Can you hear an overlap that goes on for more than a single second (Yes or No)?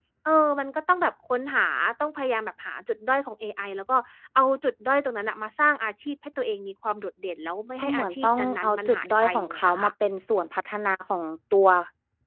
Yes